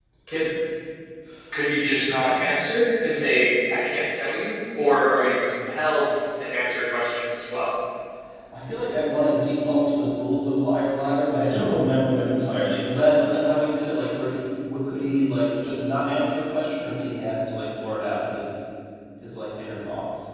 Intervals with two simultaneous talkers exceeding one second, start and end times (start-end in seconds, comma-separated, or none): none